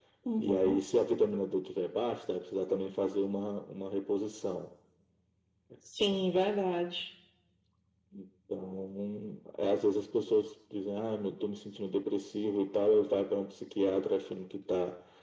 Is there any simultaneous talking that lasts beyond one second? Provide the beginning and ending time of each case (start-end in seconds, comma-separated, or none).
none